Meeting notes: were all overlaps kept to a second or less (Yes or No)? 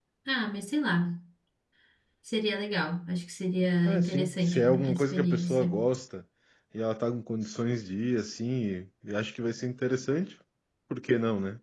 No